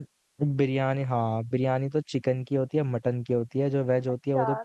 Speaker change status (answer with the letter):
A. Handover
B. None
A